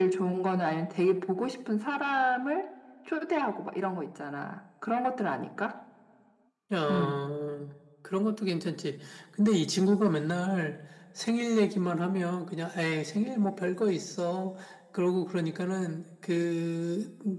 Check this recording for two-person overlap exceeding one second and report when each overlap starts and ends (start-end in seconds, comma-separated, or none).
none